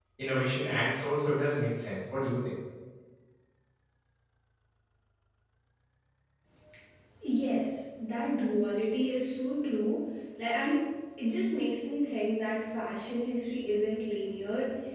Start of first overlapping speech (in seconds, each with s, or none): none